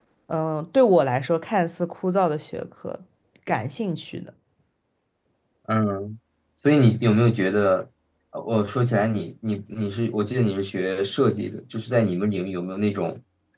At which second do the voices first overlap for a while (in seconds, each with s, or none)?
none